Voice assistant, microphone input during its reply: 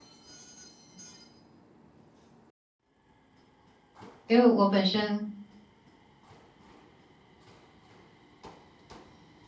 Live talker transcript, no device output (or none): 因为我本身，